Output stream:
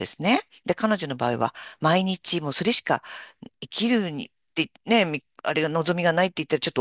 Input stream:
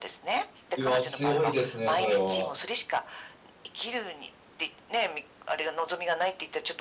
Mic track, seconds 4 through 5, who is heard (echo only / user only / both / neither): echo only